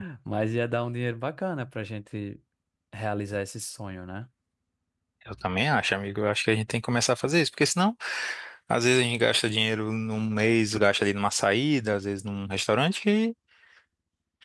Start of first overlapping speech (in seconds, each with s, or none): none